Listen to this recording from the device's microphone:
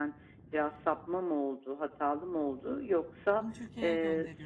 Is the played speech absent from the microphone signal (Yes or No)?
No